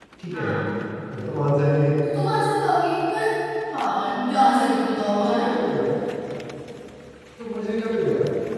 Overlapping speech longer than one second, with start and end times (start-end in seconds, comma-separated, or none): none